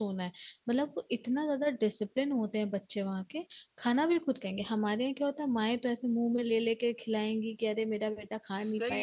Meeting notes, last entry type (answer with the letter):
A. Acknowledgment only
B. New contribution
B